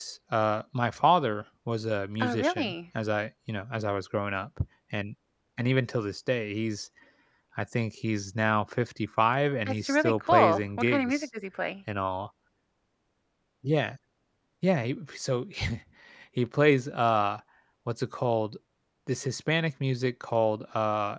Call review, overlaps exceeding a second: present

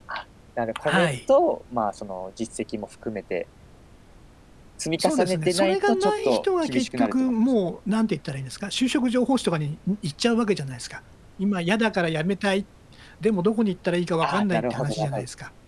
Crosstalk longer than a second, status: present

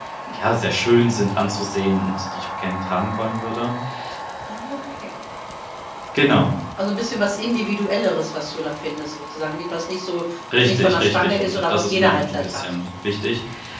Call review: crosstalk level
present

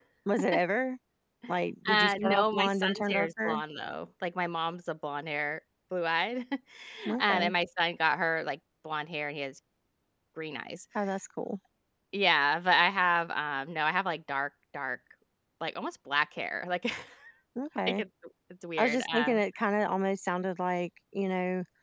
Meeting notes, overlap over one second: present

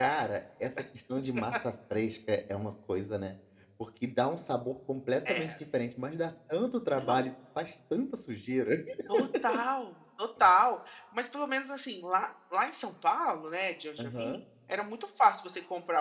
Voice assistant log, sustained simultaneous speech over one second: none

